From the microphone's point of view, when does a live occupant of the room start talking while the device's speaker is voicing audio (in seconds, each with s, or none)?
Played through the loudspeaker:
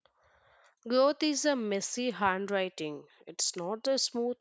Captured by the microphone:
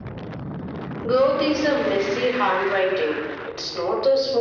none